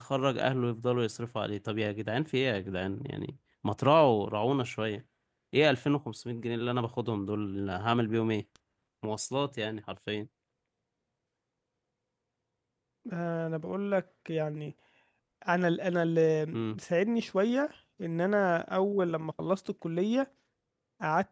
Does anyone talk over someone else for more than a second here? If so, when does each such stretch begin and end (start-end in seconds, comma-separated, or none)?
none